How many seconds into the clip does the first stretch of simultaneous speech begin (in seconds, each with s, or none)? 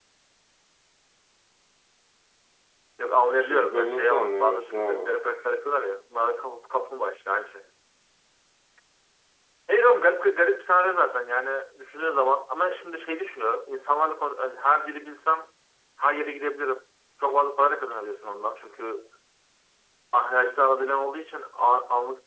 3.4 s